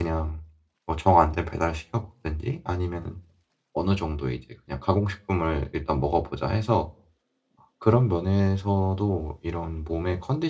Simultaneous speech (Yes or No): No